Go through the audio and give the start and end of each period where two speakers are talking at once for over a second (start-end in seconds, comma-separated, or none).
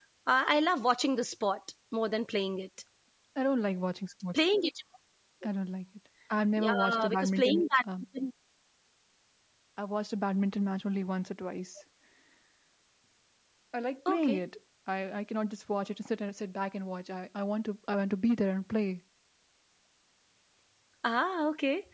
6.6-7.8